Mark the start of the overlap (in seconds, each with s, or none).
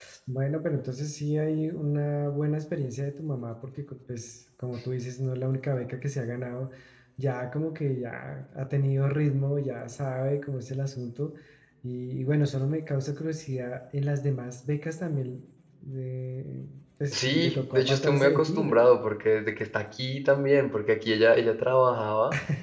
17.1 s